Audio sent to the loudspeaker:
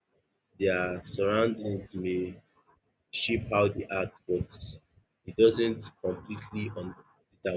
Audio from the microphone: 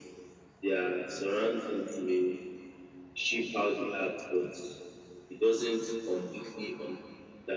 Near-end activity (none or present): present